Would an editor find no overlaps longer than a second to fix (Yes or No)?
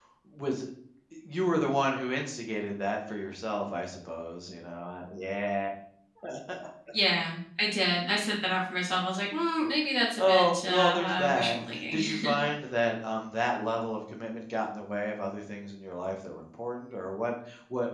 No